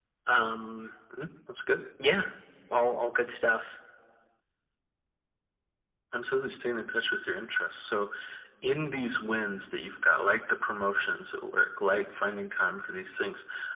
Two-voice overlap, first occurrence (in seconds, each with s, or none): none